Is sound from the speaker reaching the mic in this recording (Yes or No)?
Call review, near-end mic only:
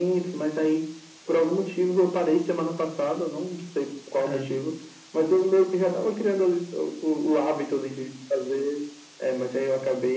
Yes